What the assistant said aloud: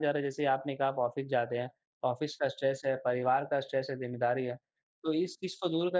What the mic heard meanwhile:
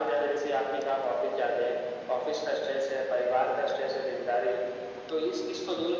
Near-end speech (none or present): none